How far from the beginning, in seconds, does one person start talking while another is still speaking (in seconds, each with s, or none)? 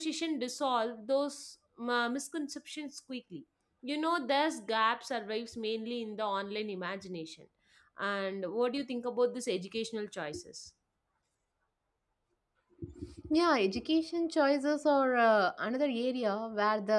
none